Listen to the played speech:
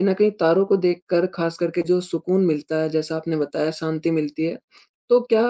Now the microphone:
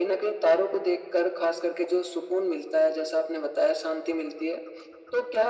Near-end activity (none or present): none